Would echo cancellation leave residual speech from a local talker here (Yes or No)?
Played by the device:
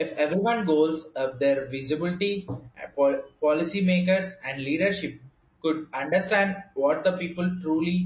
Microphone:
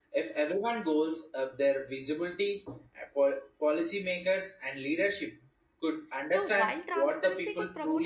Yes